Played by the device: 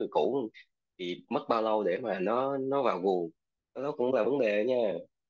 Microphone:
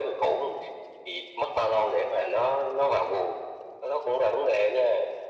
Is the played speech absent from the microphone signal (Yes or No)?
No